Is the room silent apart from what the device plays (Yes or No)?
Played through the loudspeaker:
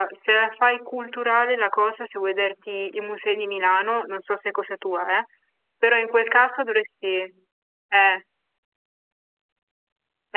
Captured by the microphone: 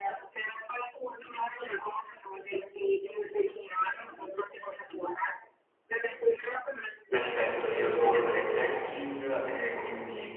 No